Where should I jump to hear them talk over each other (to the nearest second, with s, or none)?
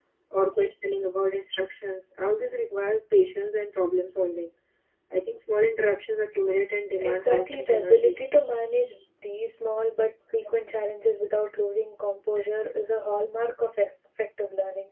7 s